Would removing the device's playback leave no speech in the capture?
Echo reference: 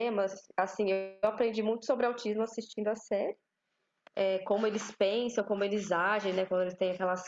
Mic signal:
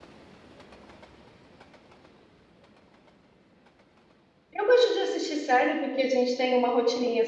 No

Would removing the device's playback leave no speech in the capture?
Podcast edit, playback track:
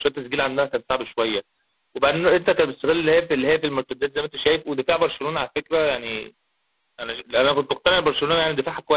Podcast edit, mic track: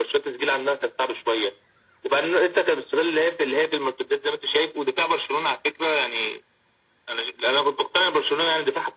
Yes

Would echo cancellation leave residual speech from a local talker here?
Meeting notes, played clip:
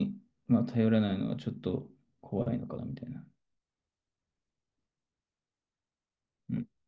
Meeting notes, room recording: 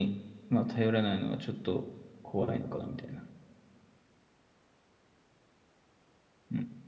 No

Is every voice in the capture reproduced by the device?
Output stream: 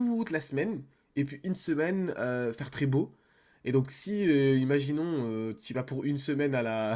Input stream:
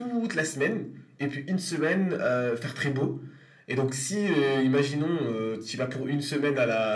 Yes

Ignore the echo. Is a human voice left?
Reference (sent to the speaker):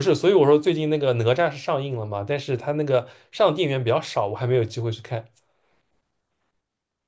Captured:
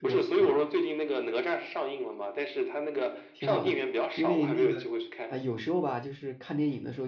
Yes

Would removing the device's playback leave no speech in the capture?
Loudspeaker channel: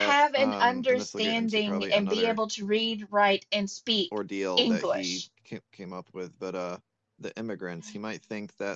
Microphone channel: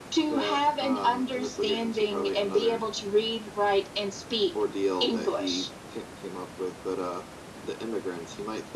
Yes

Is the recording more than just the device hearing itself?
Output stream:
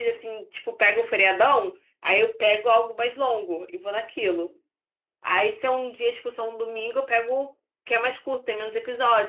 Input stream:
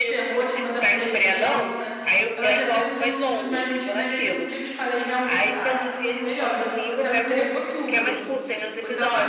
Yes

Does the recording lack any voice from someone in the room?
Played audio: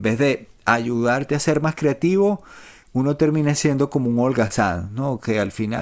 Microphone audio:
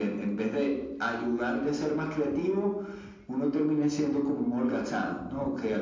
Yes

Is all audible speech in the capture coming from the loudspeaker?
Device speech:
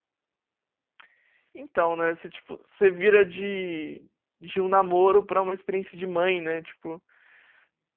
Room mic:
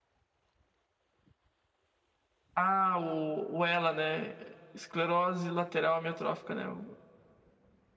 No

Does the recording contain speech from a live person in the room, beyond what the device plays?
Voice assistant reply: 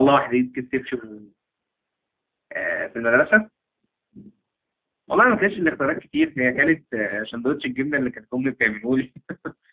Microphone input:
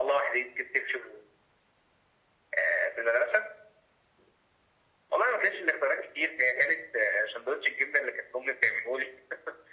No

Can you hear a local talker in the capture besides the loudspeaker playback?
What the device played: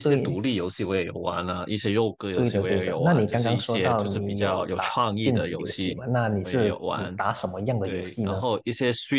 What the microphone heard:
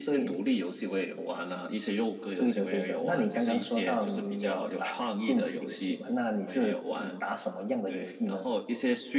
No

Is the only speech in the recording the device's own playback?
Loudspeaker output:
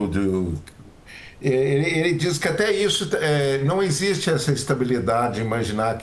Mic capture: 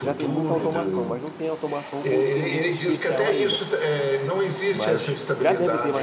No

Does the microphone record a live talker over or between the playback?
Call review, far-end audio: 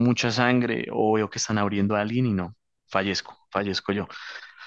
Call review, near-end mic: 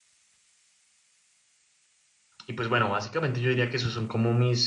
Yes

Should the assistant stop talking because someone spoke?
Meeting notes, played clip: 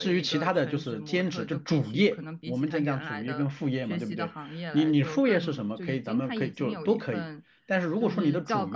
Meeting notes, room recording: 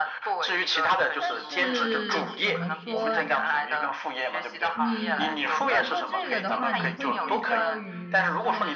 Yes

